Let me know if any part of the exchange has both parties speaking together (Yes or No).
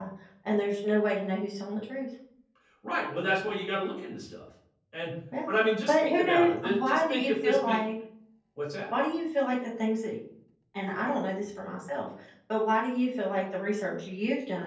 Yes